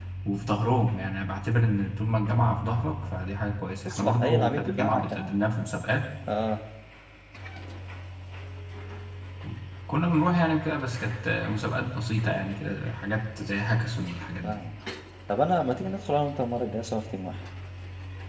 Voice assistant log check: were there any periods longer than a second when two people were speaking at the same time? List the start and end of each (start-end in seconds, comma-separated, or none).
3.8-5.4